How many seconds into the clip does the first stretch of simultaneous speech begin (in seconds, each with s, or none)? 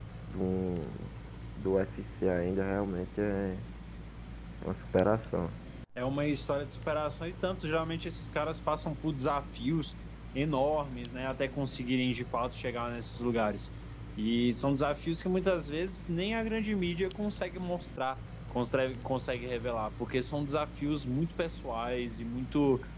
none